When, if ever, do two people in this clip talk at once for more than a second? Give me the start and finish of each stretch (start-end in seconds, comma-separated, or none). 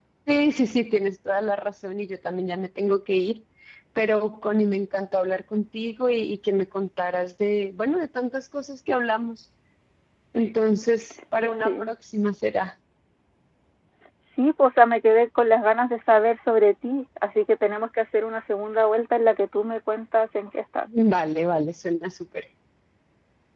none